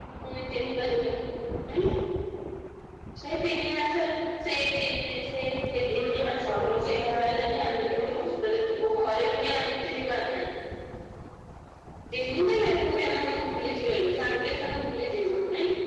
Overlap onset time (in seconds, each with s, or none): 5.9 s